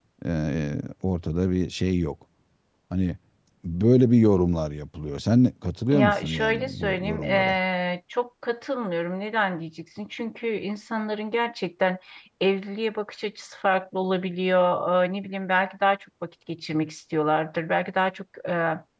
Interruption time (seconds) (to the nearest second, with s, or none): 6 s